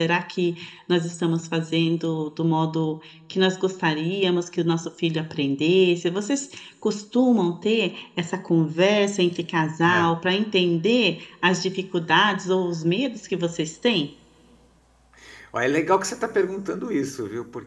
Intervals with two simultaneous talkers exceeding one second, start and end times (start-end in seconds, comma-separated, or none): none